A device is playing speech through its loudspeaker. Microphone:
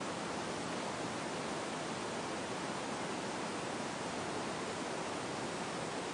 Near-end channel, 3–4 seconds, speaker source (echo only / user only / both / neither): neither